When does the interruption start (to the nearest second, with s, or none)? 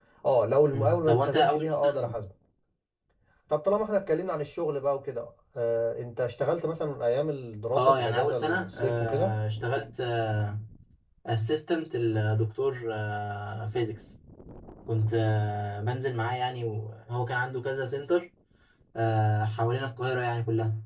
1 s